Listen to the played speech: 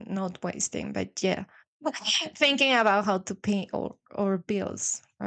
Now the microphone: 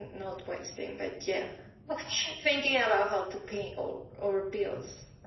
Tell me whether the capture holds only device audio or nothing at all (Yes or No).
Yes